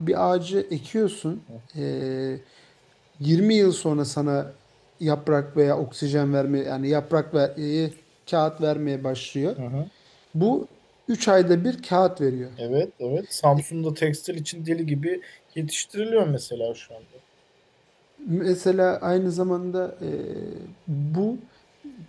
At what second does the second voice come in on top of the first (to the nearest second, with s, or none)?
none